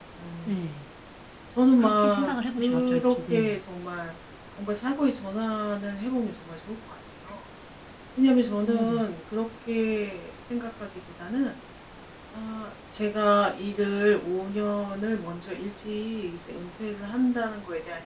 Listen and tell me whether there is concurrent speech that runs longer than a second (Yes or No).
Yes